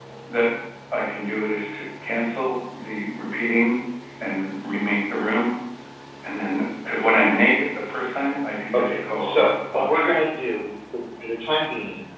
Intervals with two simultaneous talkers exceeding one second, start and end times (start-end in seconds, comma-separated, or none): 8.7-10.1